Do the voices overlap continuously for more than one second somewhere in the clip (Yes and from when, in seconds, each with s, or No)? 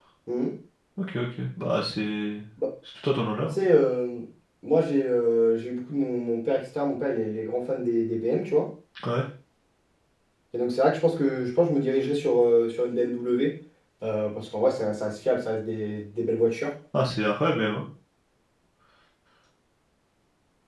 No